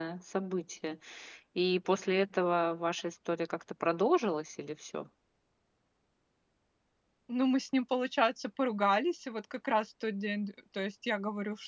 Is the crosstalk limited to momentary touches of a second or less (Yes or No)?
Yes